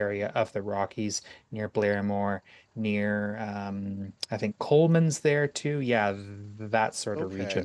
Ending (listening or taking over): taking over